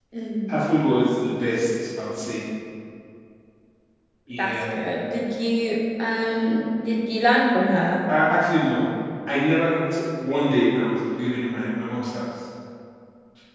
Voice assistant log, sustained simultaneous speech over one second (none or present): none